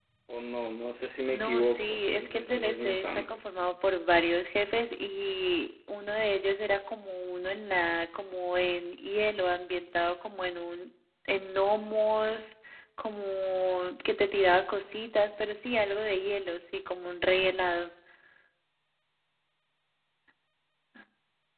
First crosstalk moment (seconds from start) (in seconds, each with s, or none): 1.3 s